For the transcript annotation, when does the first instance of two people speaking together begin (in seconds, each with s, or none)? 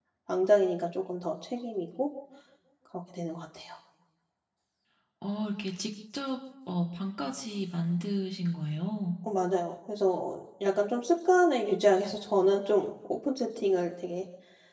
none